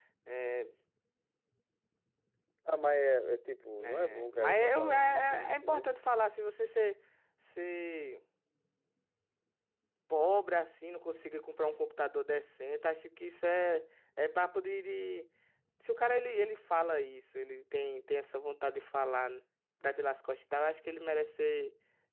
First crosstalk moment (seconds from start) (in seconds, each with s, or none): 3.8 s